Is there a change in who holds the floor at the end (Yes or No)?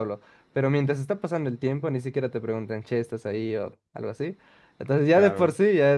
No